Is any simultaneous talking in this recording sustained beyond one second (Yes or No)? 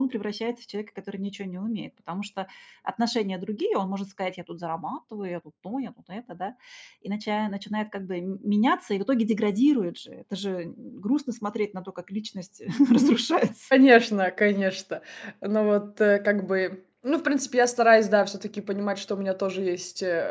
No